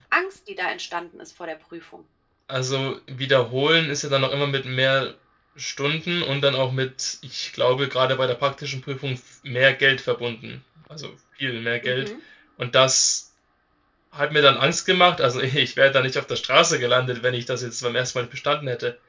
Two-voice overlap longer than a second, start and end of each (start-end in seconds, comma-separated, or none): none